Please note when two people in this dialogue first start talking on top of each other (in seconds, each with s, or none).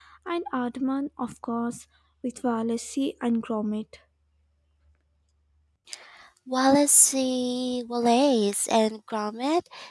none